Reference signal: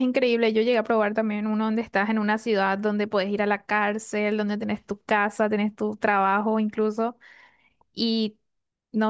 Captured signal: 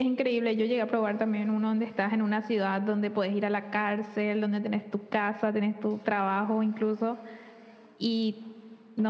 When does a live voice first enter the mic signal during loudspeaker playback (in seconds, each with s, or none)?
none